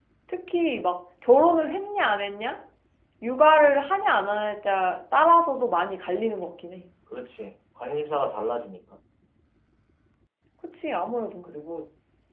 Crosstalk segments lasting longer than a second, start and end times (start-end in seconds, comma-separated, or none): none